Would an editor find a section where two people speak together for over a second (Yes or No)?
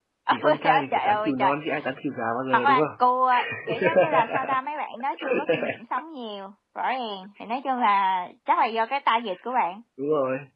Yes